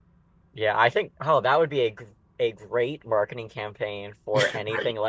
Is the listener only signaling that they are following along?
Yes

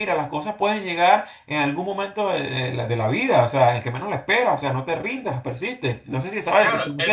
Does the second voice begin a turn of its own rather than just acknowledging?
Yes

